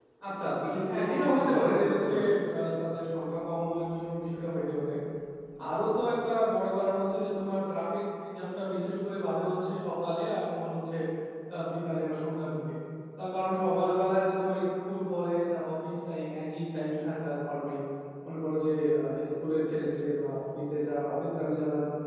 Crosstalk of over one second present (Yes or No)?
Yes